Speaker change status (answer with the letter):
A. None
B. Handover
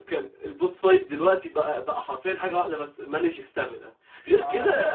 A